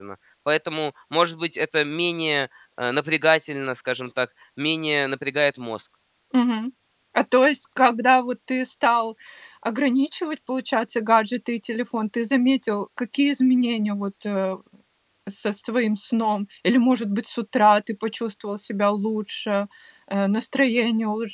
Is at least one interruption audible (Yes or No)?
No